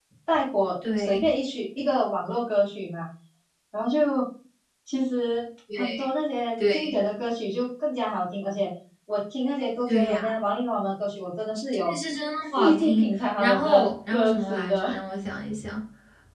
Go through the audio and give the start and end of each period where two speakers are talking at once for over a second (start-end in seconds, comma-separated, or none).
12.6-14.9